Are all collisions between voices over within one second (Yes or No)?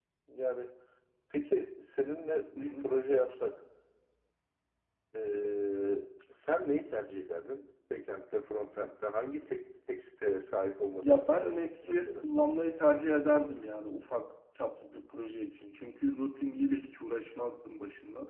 No